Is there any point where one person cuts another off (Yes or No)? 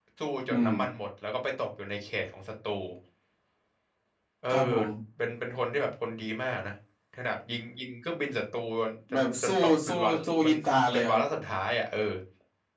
Yes